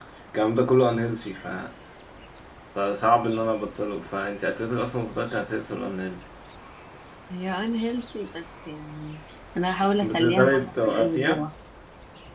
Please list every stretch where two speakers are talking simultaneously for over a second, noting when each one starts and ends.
10.0-11.4

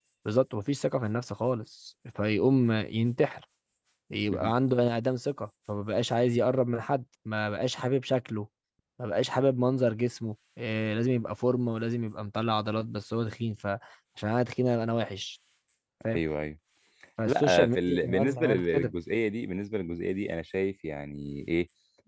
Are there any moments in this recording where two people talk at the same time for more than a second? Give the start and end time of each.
17.3-18.9

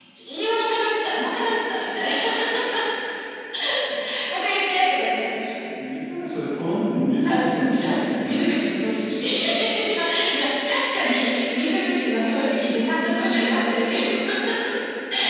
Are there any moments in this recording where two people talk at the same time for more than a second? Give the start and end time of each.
7.2-8.6

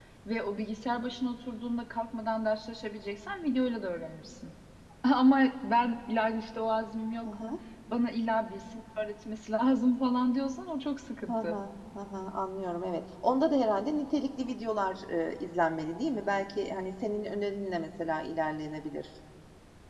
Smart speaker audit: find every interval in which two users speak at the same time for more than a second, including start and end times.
none

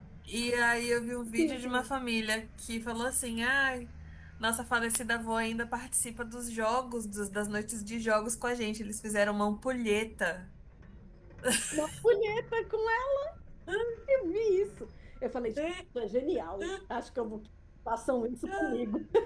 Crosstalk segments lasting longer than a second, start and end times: none

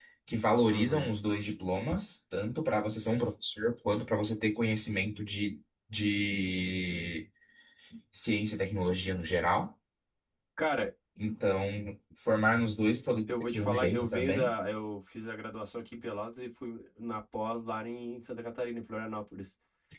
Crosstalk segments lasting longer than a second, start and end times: 13.3-14.6

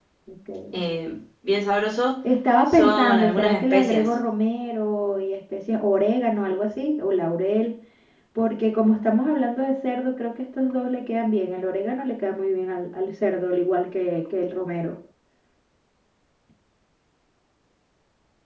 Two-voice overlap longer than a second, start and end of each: 2.7-4.1

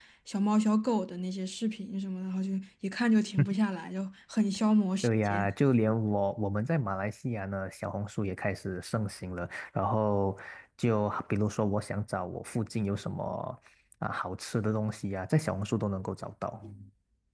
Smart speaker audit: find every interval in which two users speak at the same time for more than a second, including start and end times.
none

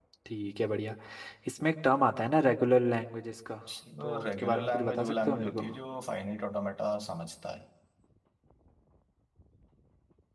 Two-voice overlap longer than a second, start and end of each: 4.0-5.6

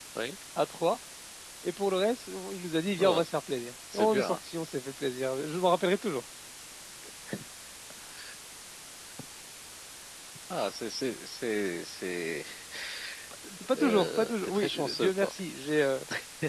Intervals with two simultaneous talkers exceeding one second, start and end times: 13.7-15.3

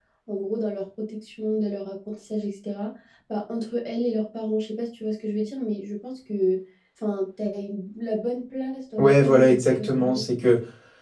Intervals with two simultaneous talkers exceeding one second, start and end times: 9.0-10.2

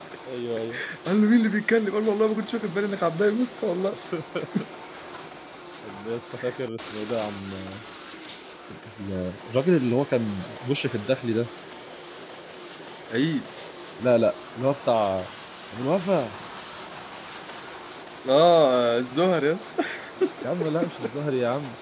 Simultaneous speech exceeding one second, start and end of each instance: none

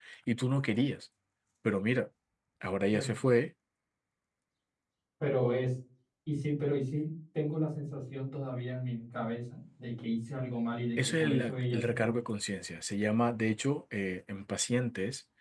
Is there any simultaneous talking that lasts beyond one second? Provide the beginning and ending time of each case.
11.0-12.2

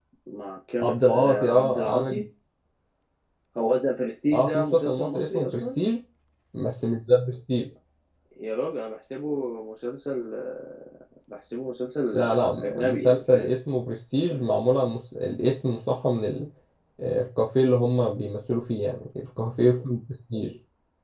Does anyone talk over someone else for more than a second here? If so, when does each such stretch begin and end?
0.8-2.2, 4.3-5.8, 12.1-13.5

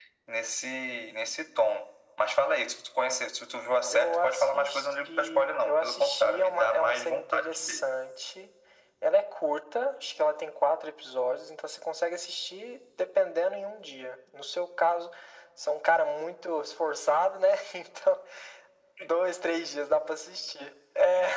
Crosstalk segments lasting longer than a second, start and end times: 3.9-7.9

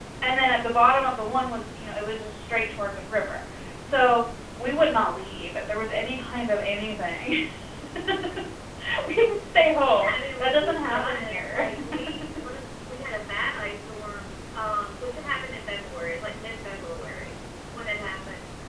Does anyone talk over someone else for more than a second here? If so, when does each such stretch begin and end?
10.0-11.6

